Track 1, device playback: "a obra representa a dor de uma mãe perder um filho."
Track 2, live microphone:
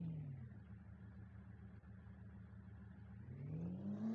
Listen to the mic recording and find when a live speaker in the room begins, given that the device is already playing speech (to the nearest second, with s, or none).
none